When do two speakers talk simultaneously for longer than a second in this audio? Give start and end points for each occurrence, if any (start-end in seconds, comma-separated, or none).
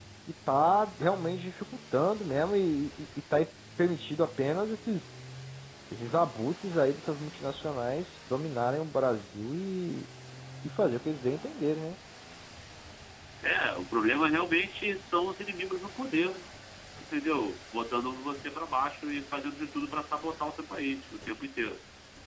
none